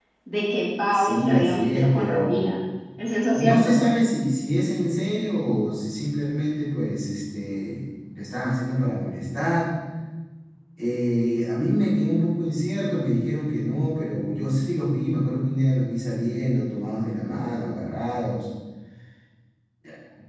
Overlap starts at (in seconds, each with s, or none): 0.9 s